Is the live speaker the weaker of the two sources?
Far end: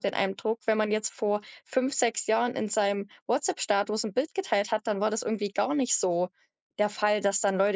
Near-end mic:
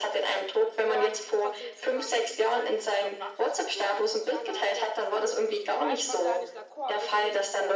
Yes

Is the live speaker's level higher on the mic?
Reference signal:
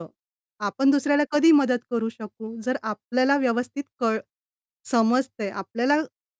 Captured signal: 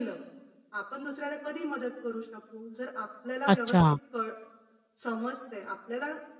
Yes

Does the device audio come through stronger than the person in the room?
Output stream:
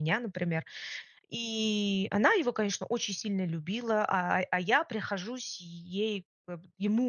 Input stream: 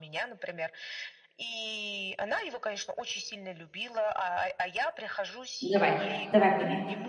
No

